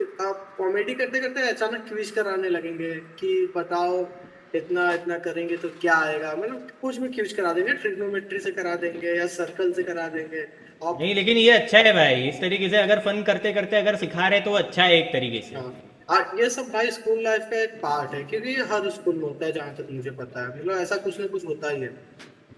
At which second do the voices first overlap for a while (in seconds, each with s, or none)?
none